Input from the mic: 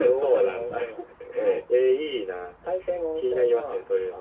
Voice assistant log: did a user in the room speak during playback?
No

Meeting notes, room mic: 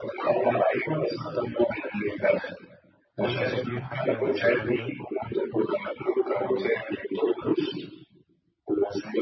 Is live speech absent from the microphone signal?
No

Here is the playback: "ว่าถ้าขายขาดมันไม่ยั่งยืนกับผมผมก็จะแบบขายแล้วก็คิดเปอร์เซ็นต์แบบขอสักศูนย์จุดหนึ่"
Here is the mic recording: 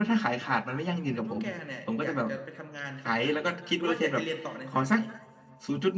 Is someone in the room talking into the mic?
Yes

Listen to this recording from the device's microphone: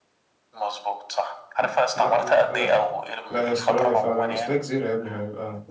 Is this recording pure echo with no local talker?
No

